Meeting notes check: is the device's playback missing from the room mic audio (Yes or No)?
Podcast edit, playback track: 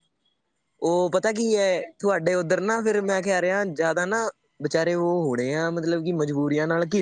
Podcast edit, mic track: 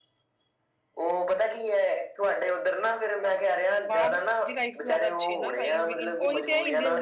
No